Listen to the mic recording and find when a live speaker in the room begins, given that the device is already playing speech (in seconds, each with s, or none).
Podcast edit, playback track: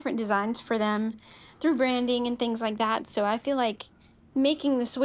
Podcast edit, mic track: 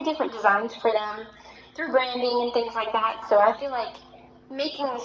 none